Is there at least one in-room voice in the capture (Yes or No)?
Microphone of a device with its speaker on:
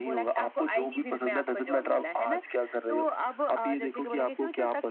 No